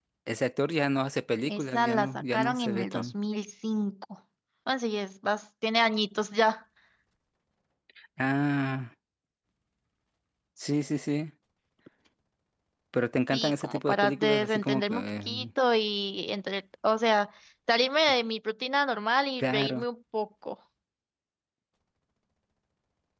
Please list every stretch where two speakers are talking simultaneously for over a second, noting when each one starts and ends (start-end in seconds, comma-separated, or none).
1.5-3.1, 13.3-15.4